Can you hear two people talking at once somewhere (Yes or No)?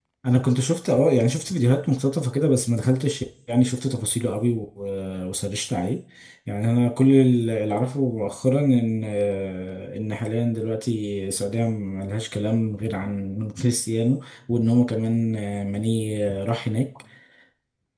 No